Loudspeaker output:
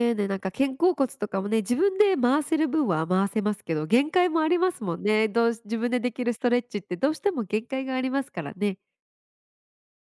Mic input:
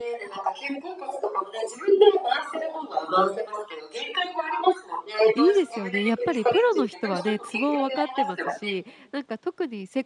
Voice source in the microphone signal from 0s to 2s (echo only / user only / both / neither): echo only